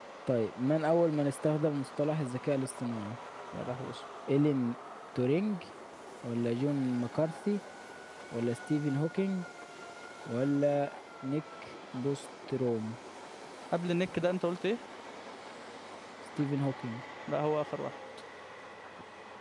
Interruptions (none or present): none